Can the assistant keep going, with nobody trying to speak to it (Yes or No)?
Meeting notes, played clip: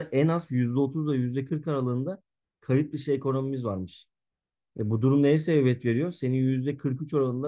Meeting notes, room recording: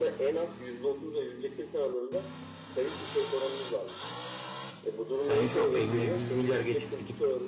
No